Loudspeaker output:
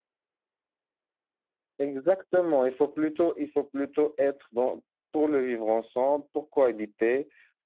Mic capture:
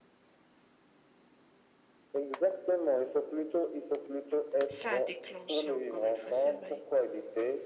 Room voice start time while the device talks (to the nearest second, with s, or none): 5 s